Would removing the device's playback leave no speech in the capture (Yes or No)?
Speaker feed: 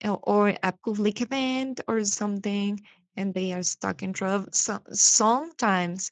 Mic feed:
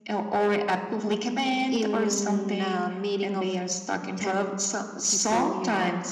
No